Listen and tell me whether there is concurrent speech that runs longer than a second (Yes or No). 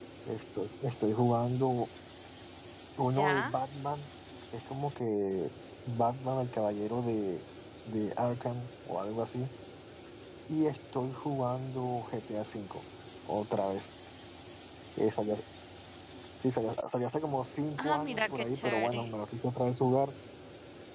Yes